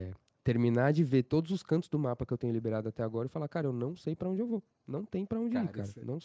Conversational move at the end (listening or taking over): taking over